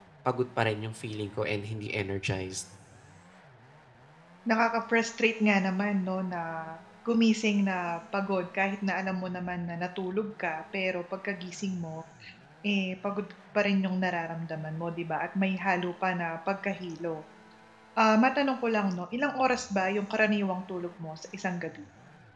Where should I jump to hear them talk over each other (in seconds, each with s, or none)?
none